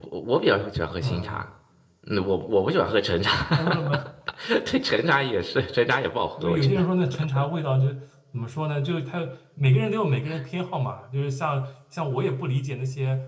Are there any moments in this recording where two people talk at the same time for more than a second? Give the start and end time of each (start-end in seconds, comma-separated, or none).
none